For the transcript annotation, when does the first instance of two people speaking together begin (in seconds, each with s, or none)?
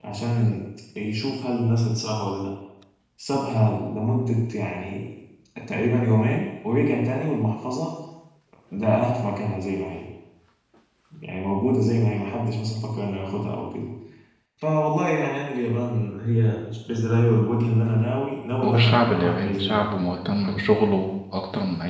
18.6 s